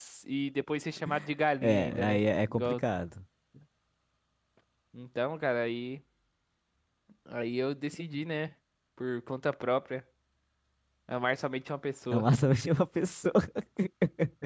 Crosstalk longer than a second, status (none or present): present